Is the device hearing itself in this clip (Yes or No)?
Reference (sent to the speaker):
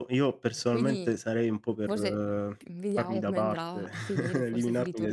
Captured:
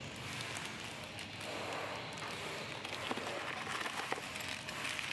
No